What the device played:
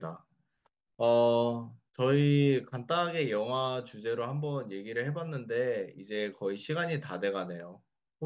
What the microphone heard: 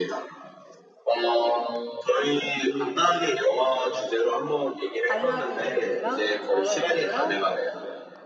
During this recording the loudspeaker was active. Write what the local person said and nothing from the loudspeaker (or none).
알라딘이랑 나라랜드랑